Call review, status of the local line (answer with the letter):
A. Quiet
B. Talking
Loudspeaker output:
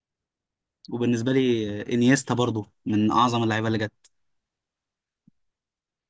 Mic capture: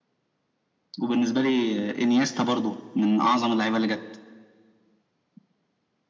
A